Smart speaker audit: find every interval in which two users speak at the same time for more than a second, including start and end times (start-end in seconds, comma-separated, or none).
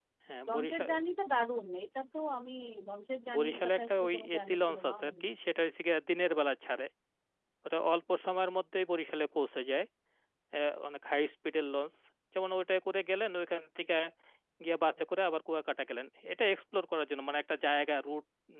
3.3-5.2